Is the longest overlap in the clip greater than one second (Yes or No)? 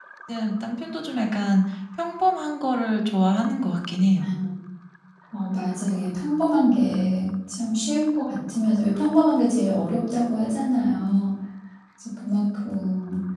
No